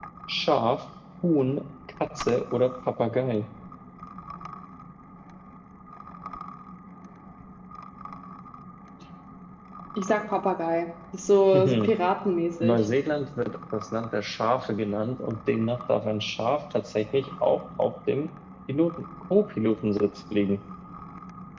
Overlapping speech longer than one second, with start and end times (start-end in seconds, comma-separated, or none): none